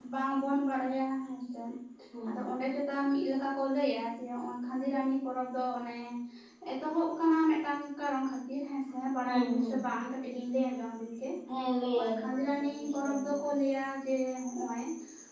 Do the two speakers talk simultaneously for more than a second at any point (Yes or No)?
Yes